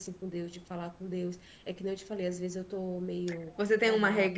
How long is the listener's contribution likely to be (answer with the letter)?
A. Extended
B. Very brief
A